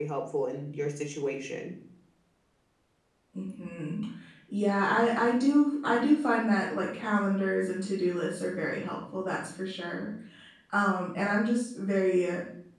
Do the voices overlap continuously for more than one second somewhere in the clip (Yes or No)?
No